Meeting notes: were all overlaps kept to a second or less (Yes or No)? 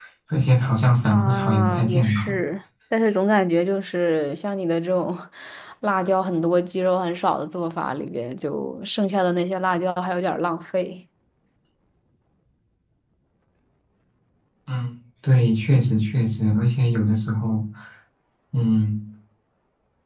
No